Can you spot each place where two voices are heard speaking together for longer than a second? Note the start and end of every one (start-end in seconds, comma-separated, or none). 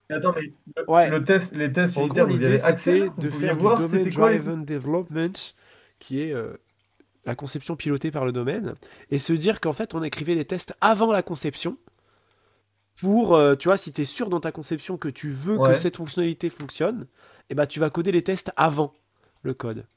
2.0-4.4